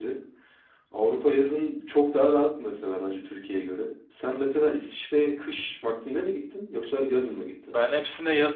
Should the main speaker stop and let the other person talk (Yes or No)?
Yes